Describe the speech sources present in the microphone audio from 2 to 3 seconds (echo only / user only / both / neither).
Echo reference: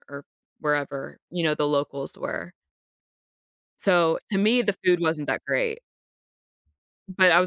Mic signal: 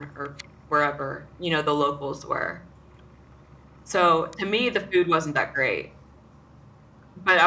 echo only